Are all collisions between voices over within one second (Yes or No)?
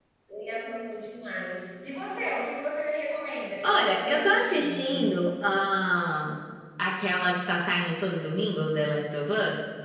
No